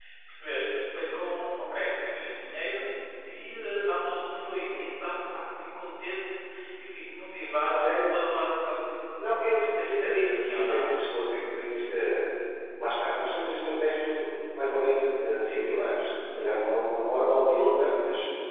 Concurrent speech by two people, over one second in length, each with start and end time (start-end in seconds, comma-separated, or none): 9.6-10.9